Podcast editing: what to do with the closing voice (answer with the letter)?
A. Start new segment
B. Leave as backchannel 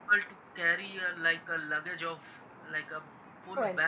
B